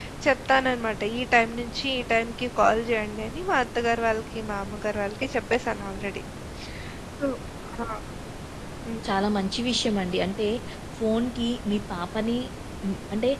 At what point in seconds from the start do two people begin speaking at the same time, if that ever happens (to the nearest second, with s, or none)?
none